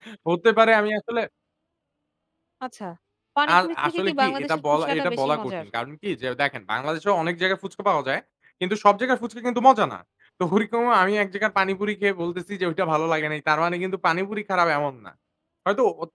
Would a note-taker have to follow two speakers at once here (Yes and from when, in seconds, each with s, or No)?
Yes, from 3.6 s